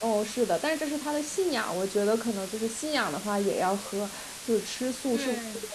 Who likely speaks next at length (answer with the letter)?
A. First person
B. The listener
A